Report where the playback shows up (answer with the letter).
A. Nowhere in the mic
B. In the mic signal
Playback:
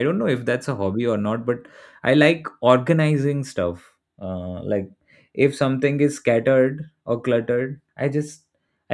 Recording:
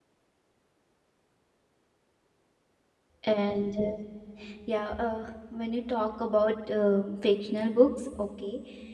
A